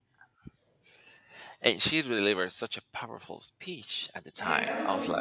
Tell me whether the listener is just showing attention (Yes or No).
No